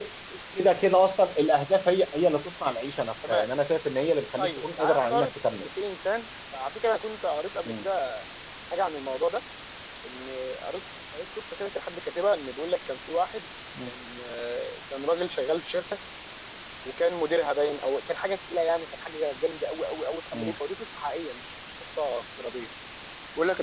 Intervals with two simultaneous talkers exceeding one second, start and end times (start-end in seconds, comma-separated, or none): 4.4-5.7